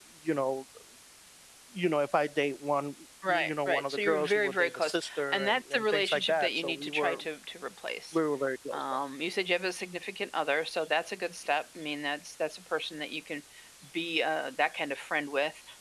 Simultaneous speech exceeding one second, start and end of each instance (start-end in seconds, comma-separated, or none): 3.3-7.2